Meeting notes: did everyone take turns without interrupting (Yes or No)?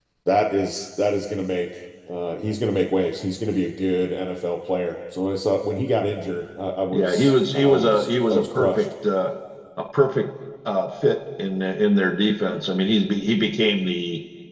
No